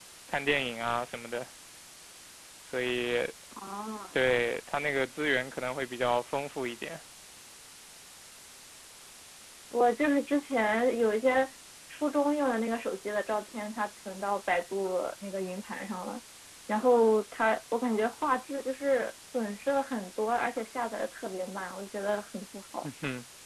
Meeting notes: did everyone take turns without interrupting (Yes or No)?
Yes